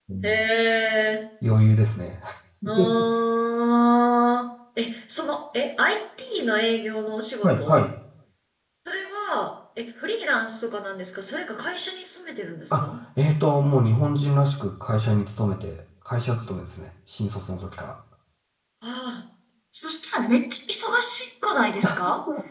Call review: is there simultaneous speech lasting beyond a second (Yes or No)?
No